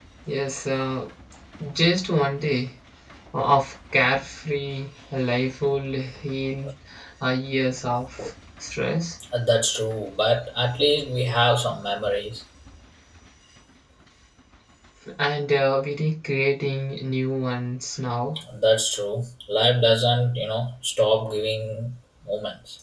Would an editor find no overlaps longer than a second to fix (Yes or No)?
Yes